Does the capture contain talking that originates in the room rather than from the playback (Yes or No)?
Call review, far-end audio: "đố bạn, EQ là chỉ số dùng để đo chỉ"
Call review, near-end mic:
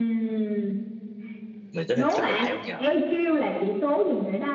Yes